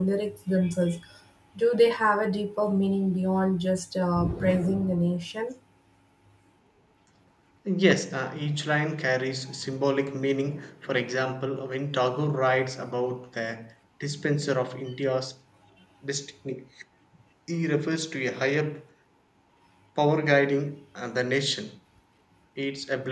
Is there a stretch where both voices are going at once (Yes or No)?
No